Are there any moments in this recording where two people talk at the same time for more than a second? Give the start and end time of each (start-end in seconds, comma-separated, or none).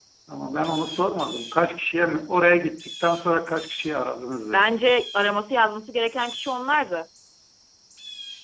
none